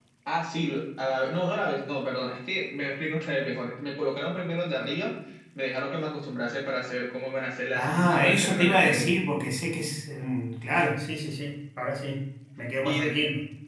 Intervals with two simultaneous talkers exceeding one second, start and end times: 7.8-9.2

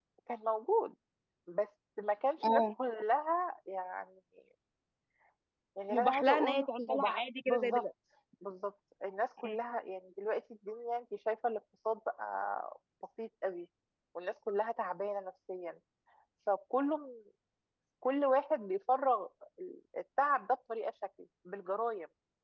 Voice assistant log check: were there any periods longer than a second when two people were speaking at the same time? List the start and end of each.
5.9-7.8

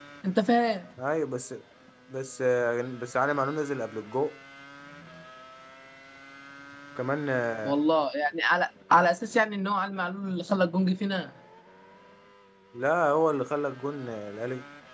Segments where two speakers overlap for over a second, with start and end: none

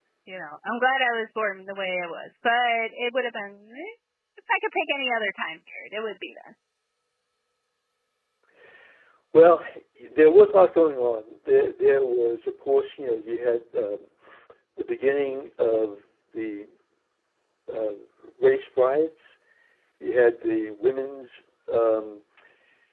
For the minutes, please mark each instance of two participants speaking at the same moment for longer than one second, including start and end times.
none

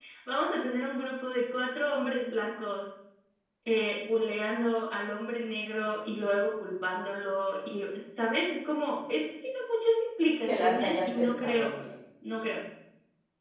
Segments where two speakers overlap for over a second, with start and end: 10.5-11.7

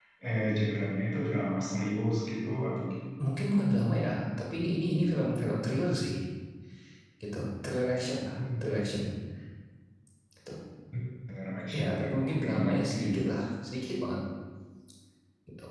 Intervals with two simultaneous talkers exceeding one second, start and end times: 11.8-13.0

